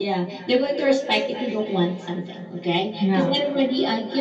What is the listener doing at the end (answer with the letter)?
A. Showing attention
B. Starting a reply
A